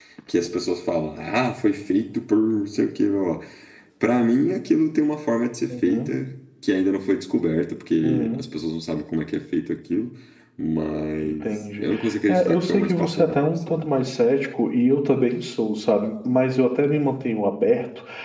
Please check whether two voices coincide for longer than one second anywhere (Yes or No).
Yes